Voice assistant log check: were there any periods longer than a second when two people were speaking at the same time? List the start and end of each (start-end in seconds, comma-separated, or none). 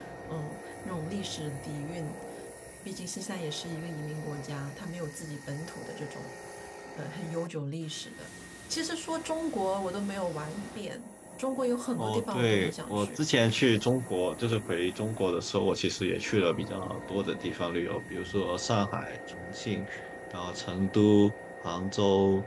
12.0-13.2